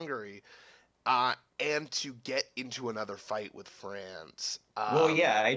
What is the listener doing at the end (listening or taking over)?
taking over